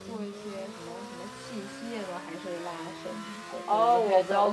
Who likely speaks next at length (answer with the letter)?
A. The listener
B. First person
A